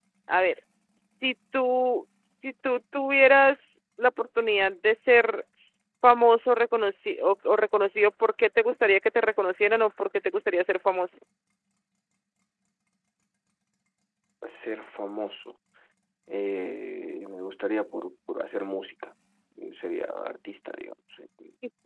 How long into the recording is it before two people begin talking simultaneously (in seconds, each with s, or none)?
none